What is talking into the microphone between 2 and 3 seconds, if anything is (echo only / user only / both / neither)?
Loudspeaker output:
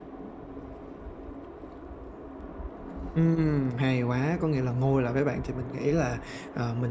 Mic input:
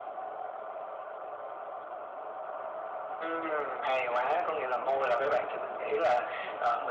neither